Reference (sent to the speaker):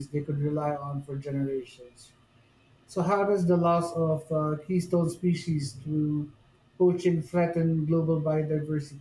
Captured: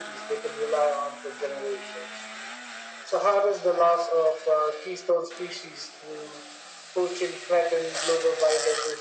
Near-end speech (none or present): none